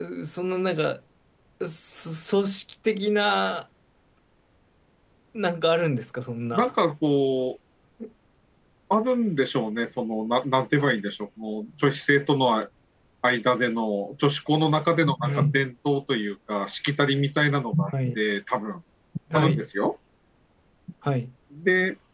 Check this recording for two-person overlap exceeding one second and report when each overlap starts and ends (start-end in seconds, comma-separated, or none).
none